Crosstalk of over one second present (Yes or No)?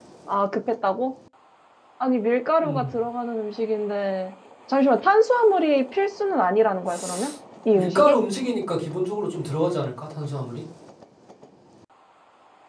No